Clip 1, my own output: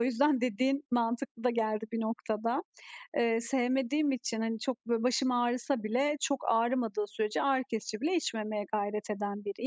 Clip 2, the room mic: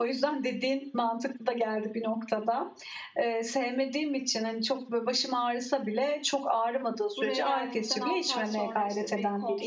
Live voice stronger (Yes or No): No